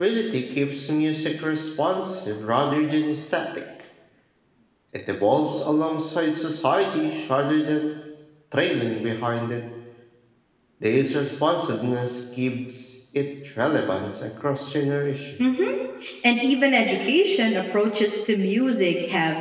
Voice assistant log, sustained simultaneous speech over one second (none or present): none